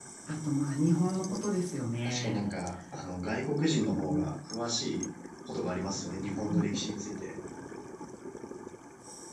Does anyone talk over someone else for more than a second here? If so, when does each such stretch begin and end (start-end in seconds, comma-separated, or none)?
none